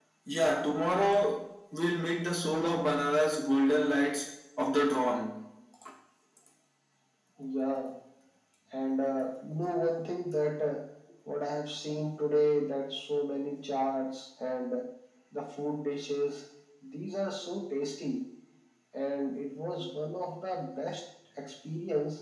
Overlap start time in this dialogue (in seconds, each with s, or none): none